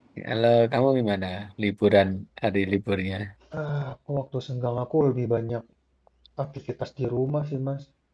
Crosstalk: none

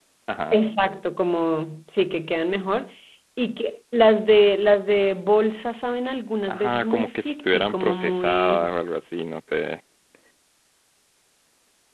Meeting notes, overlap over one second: present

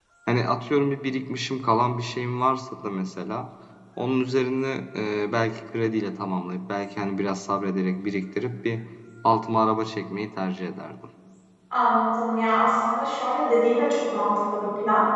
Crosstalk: none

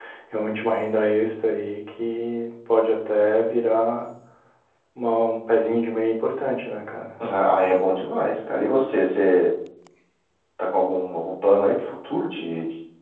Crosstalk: none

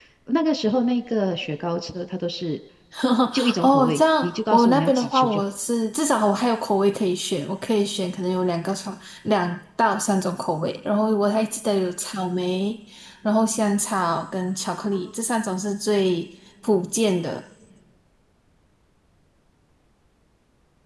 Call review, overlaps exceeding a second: present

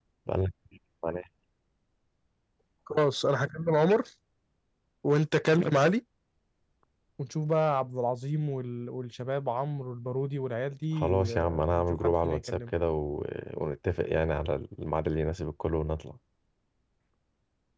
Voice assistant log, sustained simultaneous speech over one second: present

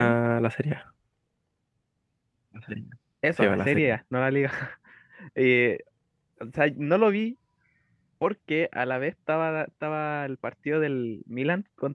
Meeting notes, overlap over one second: none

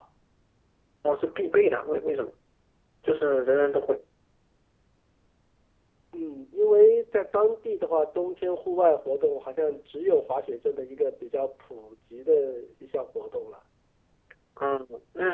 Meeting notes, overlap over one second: none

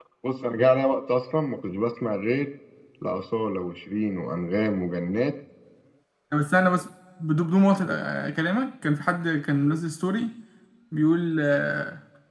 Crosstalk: none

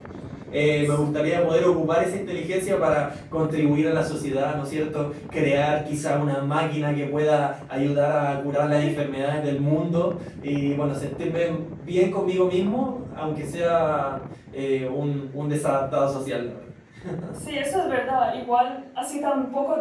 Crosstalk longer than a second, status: none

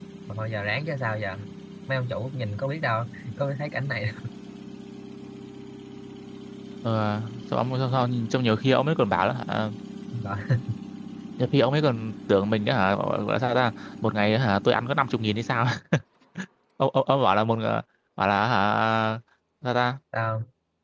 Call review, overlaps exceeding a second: none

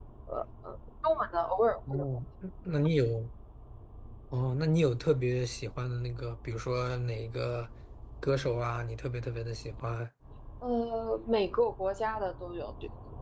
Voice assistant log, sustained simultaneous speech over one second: none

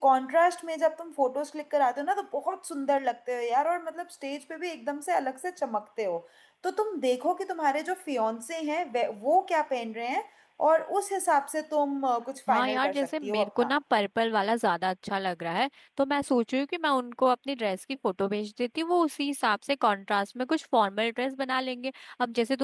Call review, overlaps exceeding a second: present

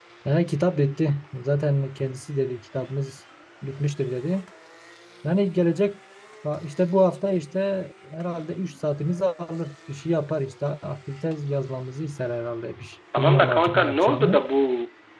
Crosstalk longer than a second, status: present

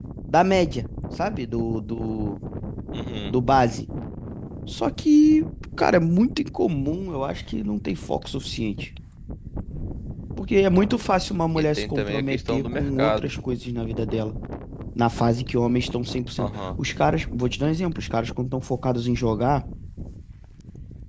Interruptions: present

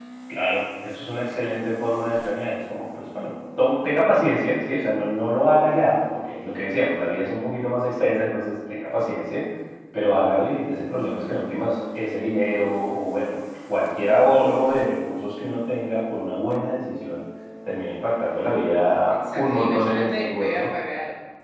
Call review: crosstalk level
present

